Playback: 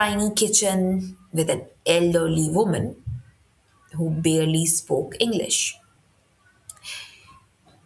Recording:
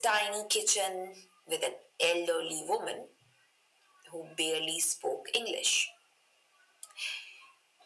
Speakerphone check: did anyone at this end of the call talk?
No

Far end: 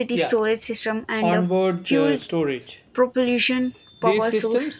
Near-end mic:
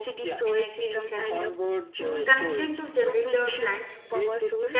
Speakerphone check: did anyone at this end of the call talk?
Yes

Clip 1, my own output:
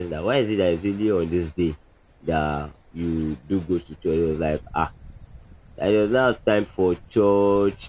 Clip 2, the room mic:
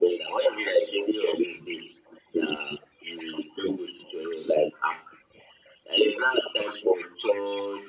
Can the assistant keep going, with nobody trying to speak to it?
Yes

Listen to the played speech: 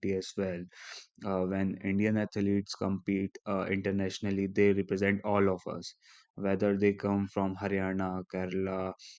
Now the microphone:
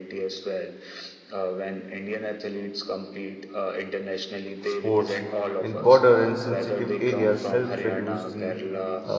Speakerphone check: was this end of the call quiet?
No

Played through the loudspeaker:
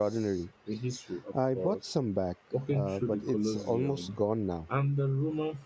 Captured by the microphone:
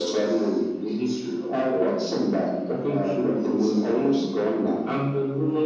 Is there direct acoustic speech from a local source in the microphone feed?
No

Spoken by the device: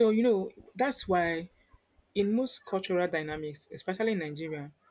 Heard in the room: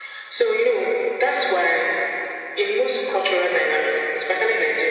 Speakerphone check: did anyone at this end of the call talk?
No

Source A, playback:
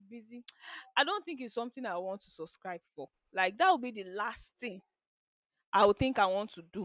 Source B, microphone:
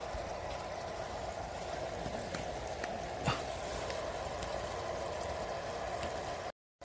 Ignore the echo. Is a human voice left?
No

